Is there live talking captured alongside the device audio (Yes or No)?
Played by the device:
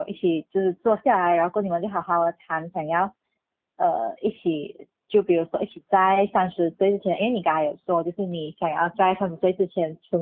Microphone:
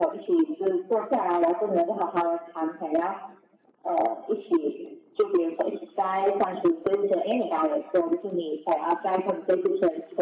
No